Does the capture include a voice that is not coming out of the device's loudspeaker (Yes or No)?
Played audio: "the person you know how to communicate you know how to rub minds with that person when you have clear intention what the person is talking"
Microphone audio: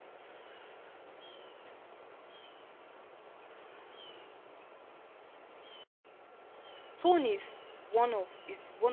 Yes